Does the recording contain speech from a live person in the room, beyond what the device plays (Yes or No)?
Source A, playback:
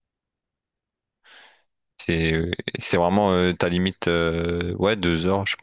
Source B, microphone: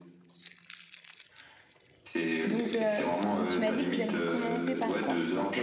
Yes